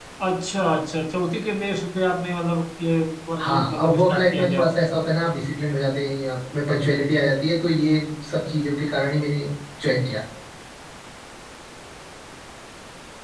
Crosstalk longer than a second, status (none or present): present